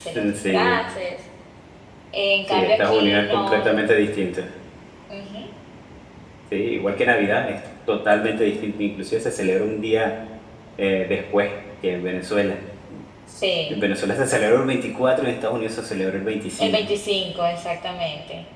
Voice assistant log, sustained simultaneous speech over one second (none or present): present